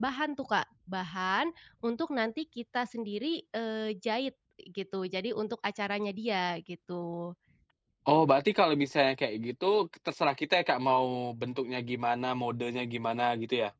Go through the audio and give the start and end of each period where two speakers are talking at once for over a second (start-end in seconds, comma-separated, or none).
none